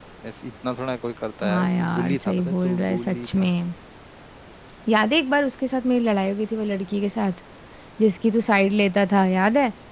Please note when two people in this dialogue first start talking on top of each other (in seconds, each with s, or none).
1.4 s